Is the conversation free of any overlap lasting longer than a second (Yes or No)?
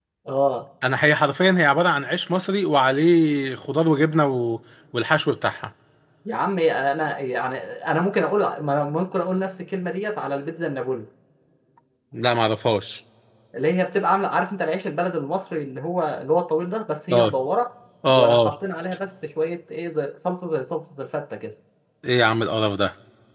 Yes